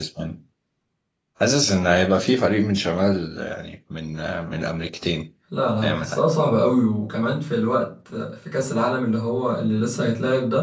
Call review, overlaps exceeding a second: none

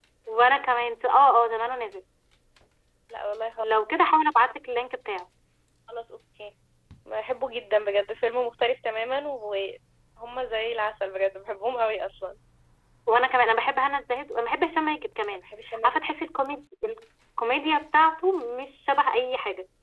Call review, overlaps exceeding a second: none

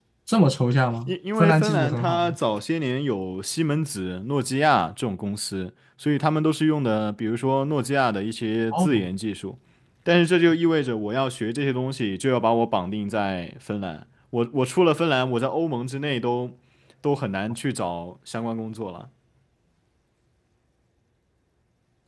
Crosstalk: present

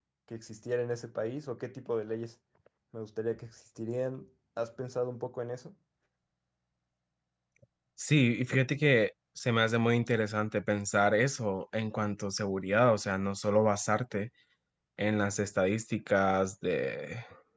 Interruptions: none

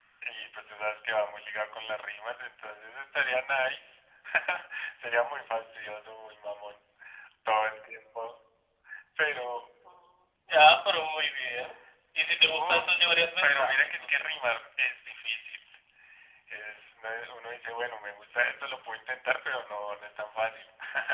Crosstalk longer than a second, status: present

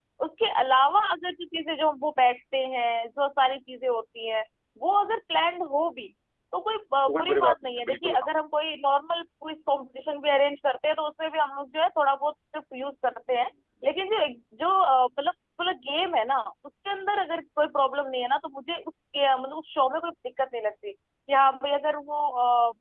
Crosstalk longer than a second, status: present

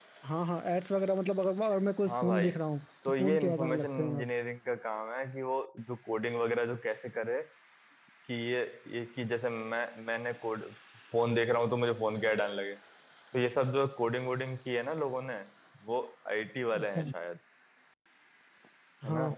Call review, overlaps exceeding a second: present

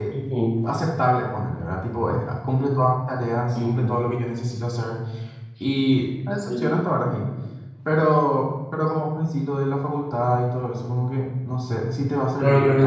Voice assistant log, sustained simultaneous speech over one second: none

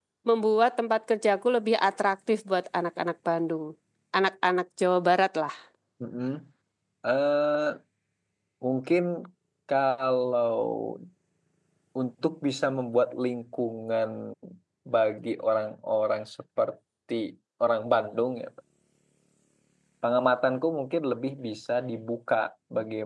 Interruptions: none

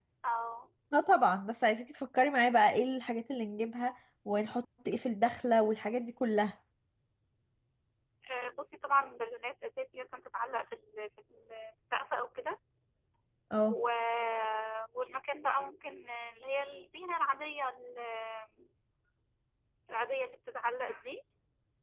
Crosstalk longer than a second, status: none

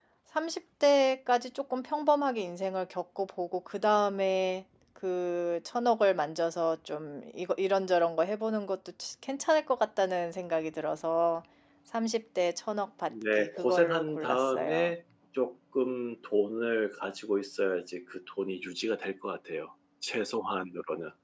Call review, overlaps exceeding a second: present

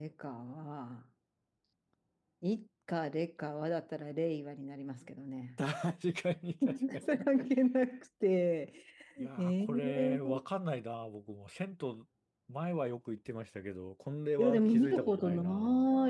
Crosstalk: present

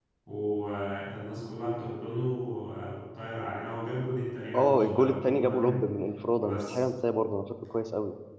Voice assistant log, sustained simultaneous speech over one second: present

